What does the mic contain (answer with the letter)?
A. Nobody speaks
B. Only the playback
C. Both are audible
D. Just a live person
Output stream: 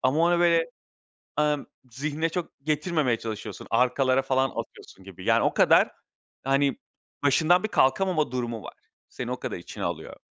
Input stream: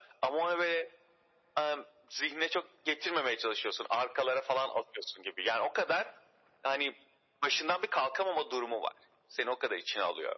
B